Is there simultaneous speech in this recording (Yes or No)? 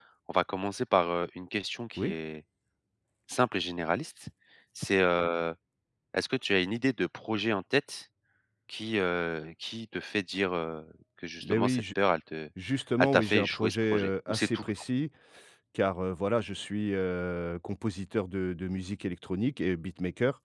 Yes